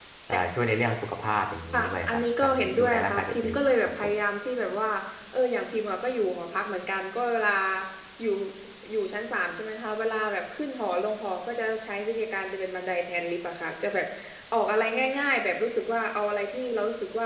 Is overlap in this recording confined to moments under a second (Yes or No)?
No